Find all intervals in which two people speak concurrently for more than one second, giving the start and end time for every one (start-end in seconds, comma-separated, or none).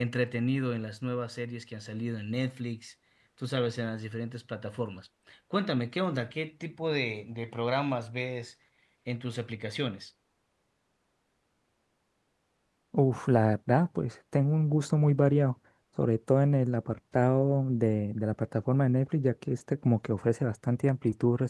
none